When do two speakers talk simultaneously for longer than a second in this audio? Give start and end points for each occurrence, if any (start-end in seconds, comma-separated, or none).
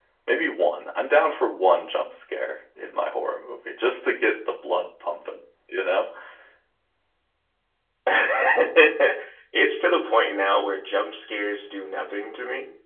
none